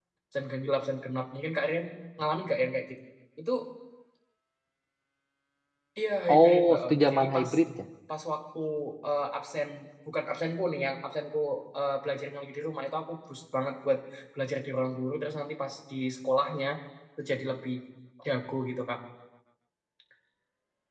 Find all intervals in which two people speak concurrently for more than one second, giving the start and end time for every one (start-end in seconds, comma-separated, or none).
6.3-7.5